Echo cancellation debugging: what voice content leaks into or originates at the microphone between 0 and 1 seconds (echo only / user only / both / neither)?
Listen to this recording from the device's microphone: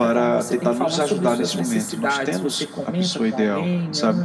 echo only